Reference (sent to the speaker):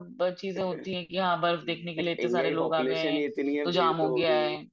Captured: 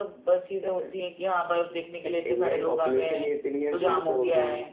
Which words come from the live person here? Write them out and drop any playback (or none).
none